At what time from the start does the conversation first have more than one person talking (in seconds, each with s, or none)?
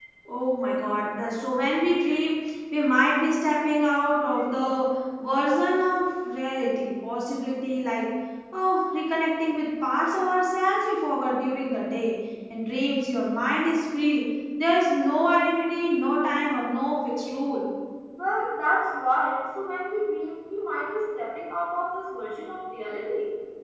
none